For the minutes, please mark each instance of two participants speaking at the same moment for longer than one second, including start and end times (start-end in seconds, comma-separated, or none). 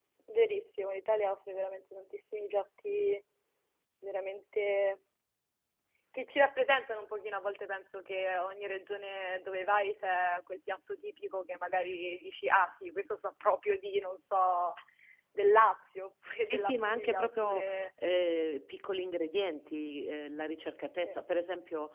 16.5-17.9